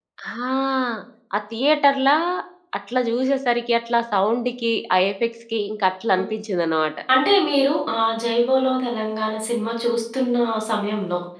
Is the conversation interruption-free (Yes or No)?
Yes